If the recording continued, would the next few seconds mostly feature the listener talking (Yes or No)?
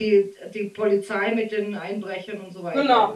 Yes